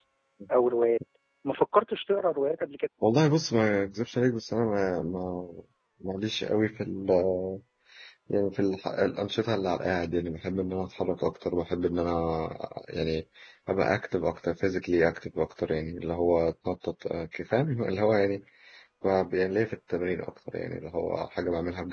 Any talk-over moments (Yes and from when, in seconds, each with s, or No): No